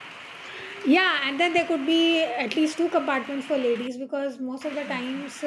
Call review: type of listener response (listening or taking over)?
listening